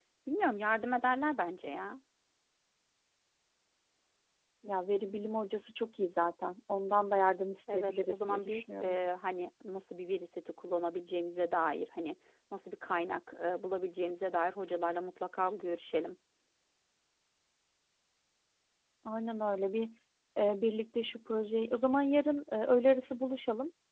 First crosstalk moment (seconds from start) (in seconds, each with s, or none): 7.7 s